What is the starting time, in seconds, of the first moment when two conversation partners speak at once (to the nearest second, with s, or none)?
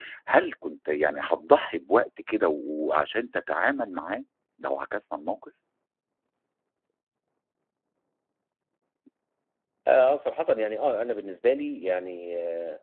none